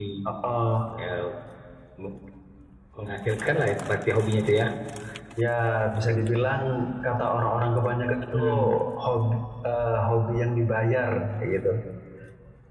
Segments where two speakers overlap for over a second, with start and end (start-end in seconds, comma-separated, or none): none